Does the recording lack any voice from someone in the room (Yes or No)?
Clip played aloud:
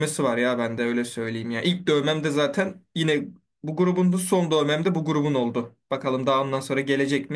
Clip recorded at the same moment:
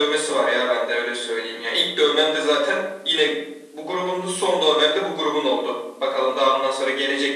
Yes